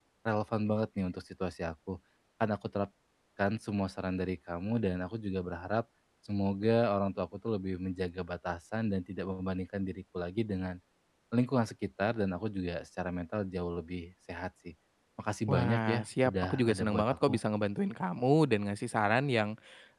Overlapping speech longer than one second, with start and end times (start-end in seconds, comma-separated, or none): 15.4-17.4